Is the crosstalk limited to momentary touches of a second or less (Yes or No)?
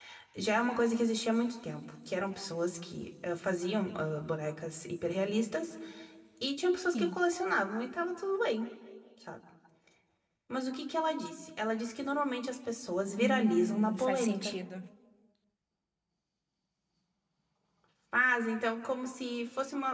No